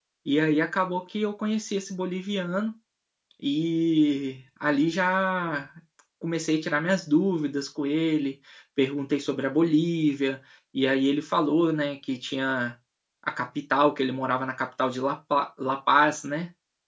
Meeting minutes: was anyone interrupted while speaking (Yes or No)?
No